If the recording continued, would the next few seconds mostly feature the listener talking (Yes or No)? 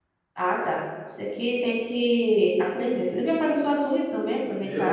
Yes